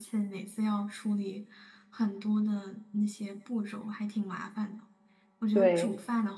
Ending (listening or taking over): listening